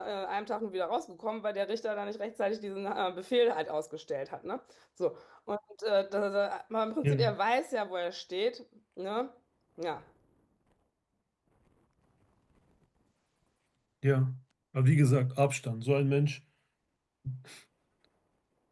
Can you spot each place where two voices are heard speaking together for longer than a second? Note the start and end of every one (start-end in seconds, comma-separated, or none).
none